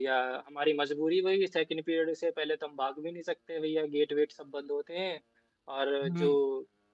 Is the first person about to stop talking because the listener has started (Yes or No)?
No